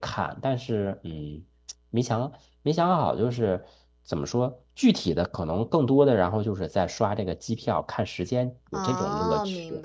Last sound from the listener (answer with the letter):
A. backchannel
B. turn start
B